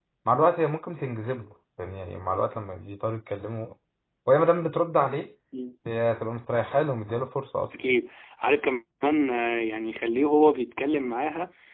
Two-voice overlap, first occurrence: none

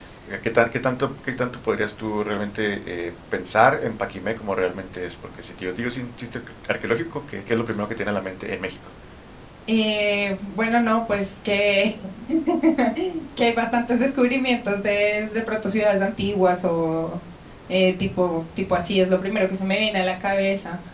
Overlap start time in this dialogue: none

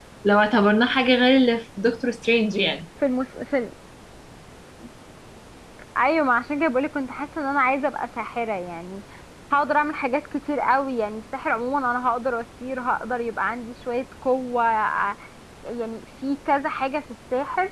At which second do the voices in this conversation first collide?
none

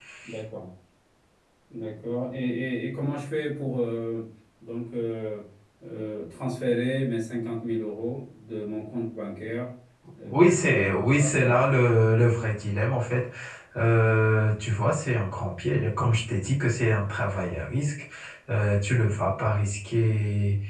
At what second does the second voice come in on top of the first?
10 s

